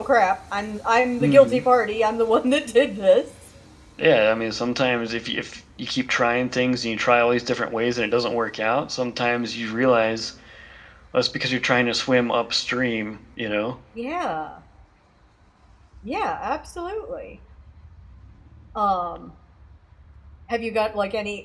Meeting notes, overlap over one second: none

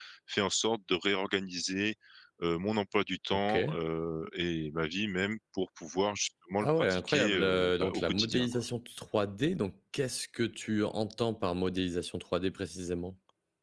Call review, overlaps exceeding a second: present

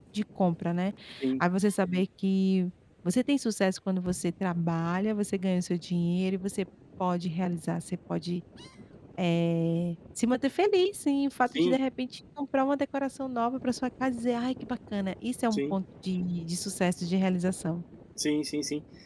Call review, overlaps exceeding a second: none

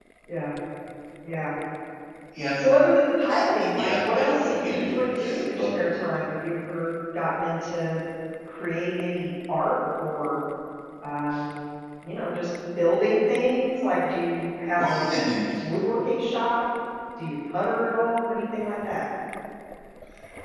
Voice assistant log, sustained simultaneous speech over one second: present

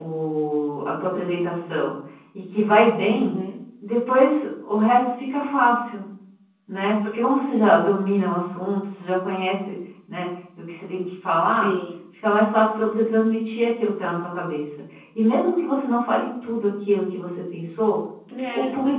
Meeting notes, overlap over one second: none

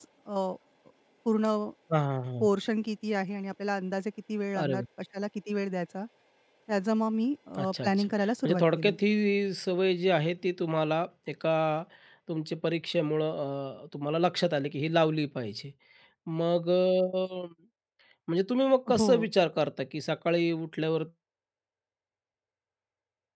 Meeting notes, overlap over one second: present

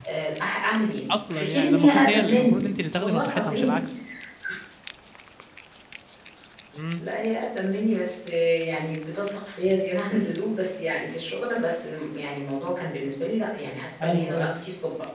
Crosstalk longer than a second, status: present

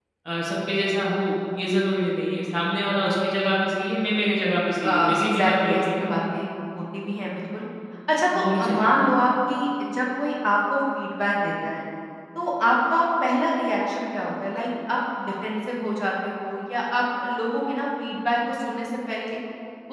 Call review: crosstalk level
present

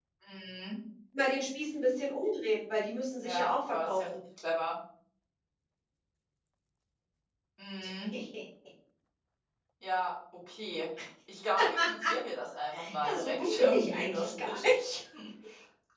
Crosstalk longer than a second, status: present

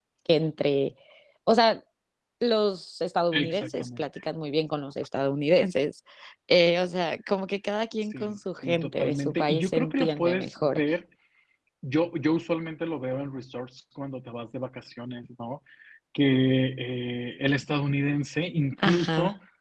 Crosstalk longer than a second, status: present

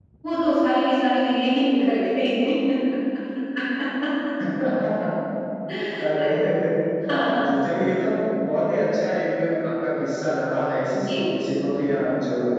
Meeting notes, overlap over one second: none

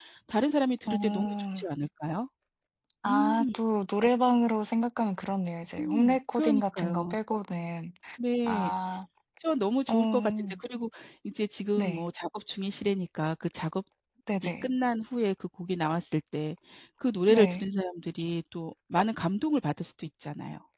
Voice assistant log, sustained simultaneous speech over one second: present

